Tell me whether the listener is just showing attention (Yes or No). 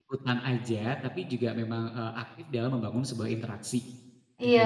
No